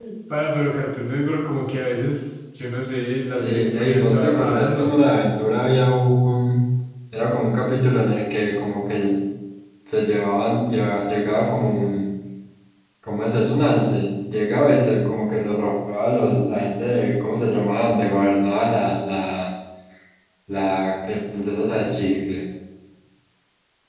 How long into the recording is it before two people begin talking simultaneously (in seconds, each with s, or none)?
3.3 s